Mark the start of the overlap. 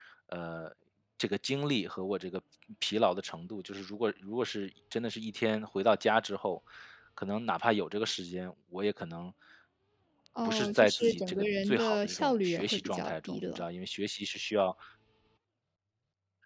10 s

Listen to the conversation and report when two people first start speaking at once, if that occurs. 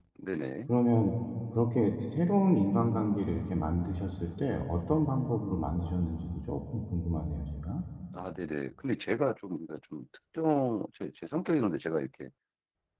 none

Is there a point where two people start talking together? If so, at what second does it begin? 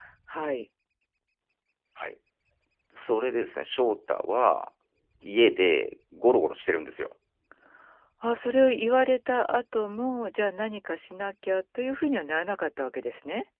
none

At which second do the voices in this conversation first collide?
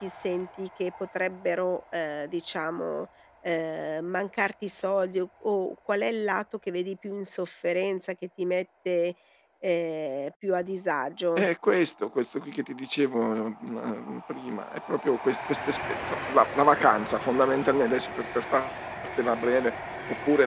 none

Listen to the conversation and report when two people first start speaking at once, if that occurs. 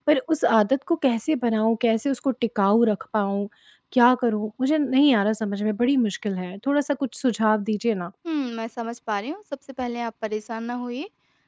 none

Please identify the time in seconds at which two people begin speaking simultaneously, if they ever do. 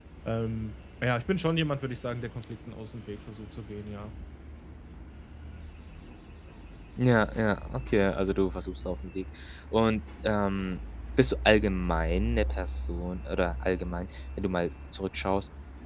none

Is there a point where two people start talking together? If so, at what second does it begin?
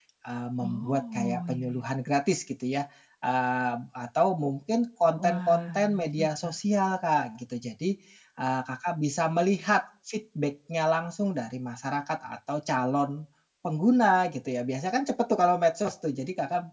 1 s

